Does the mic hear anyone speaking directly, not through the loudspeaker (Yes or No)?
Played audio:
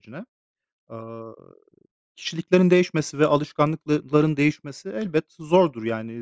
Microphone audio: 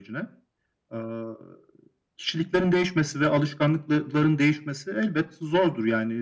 No